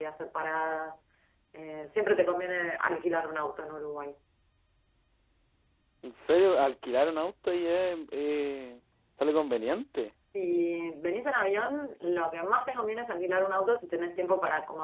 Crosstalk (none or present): none